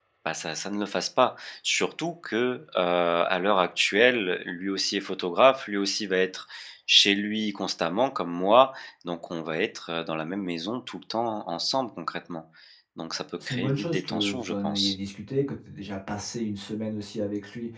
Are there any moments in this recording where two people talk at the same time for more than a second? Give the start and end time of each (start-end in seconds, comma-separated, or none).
13.5-15.0